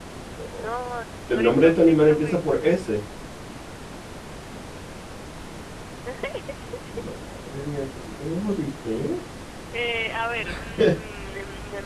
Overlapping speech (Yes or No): Yes